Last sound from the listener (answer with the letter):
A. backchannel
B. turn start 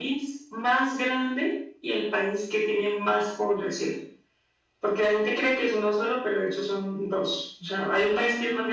A